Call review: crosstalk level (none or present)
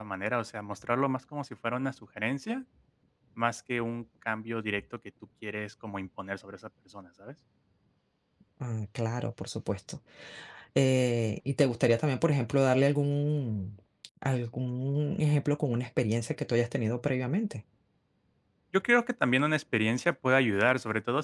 none